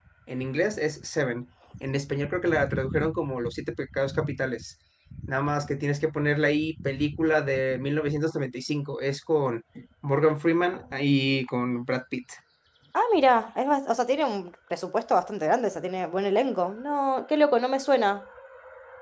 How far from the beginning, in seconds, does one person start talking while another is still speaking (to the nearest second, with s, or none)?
none